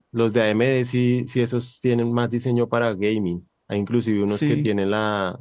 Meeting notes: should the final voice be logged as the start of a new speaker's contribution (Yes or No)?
No